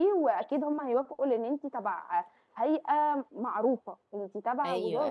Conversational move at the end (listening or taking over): taking over